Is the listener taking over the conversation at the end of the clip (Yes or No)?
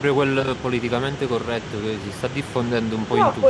Yes